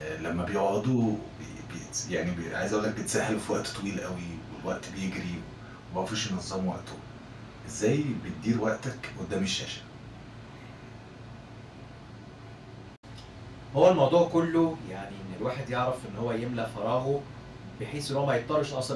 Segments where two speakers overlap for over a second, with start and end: none

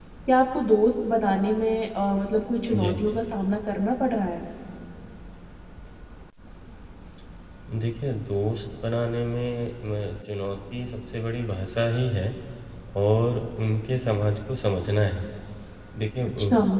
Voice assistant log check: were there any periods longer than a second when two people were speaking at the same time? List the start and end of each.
none

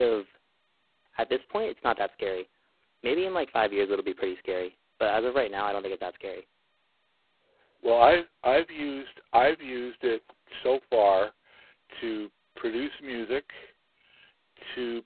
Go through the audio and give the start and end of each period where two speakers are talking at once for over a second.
none

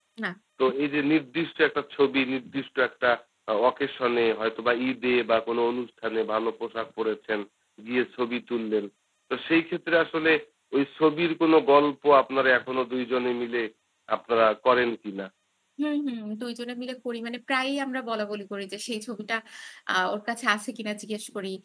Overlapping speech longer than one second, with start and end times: none

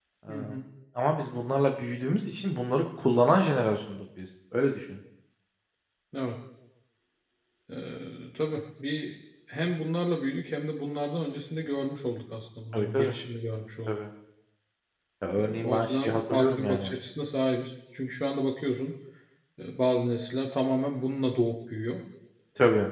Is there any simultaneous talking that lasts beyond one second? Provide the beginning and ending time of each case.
15.4-16.9

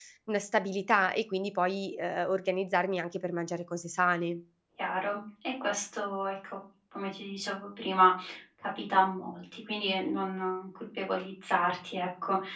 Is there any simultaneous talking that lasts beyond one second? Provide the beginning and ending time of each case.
none

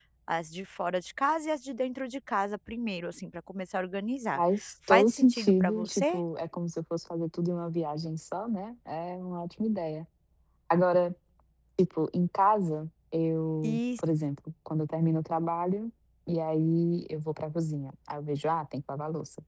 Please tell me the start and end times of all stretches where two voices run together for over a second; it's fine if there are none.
4.9-6.2

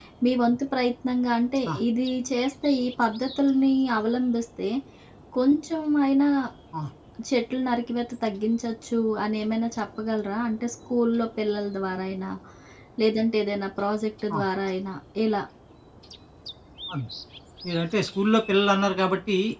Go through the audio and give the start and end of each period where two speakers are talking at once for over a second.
none

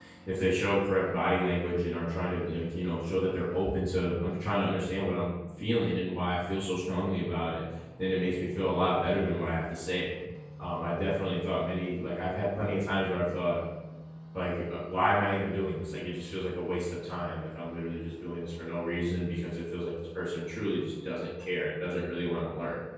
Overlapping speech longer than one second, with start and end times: none

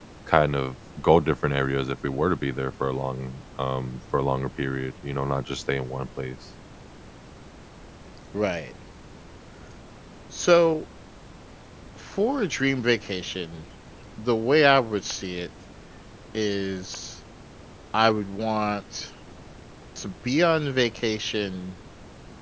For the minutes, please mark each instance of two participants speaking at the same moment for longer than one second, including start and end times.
none

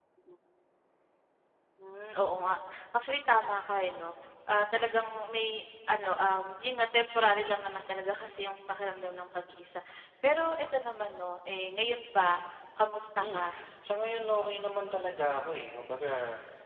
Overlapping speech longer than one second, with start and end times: none

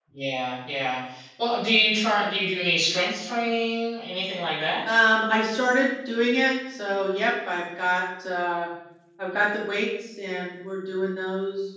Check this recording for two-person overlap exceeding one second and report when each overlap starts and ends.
none

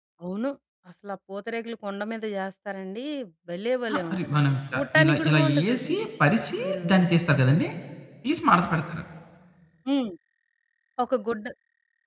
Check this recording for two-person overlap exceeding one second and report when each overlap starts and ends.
3.9-6.0

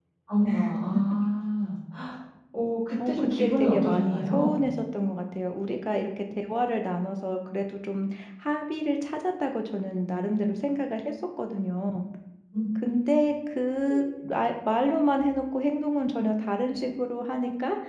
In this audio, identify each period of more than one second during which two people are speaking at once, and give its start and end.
3.1-4.7

